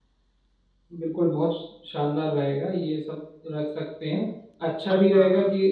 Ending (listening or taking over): listening